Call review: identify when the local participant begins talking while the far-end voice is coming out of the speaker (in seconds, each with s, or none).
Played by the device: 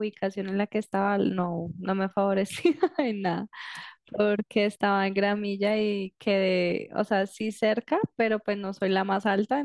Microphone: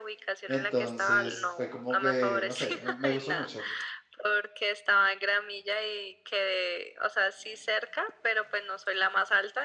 0.5 s